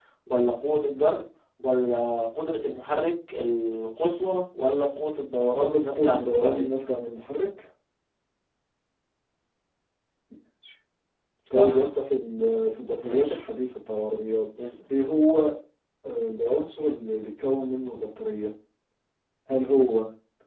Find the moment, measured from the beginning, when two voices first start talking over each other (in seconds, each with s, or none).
5.4 s